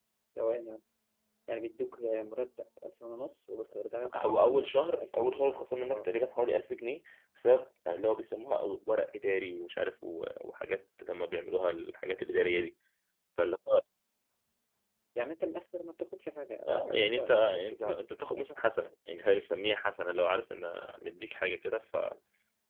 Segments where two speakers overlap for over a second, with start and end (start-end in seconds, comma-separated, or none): 4.1-5.5, 16.7-18.4